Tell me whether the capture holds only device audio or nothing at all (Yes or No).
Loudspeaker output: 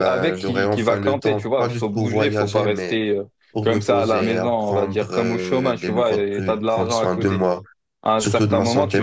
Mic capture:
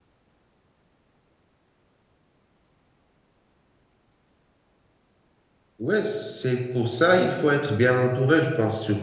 No